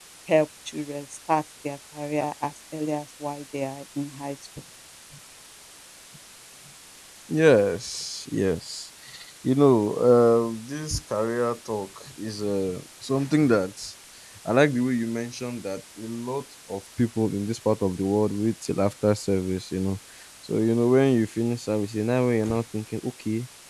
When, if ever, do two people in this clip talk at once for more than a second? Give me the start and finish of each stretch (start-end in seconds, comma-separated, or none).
none